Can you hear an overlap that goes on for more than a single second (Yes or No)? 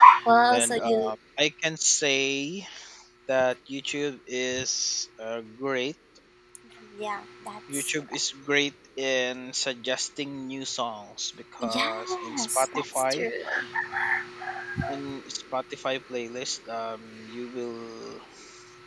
Yes